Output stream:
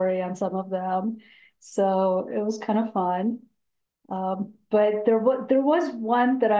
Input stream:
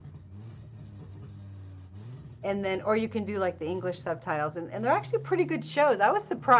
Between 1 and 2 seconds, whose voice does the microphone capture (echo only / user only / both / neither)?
neither